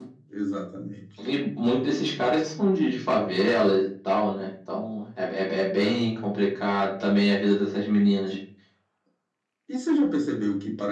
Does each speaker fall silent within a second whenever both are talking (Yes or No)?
Yes